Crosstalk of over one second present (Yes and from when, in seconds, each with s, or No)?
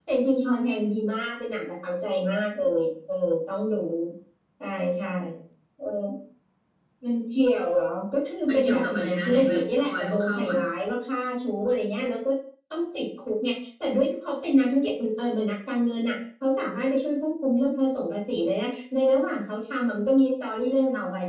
Yes, from 8.5 s